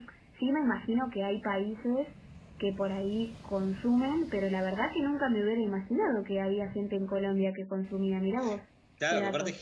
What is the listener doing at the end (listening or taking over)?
taking over